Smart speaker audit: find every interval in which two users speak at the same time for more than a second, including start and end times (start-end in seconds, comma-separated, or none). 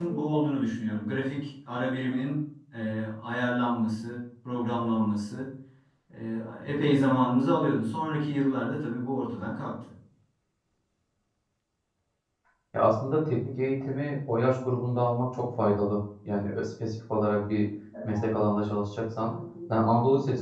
none